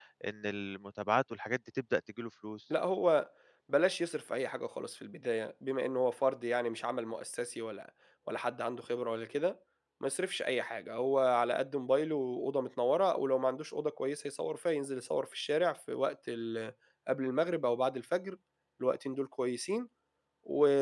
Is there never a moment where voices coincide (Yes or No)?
Yes